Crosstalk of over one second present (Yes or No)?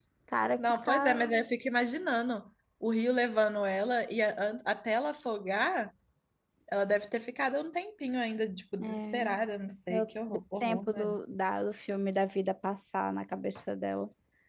Yes